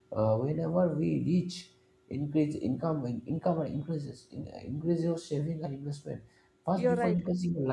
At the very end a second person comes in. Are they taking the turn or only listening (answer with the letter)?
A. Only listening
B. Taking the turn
A